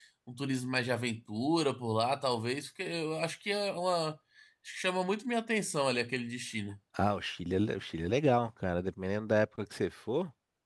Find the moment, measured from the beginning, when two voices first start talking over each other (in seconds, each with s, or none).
none